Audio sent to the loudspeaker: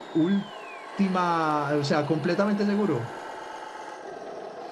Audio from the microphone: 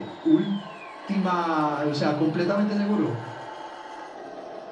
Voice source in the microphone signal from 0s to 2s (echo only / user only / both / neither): echo only